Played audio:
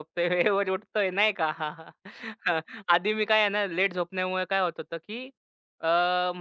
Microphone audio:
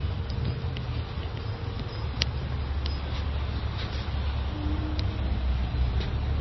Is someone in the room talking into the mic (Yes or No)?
No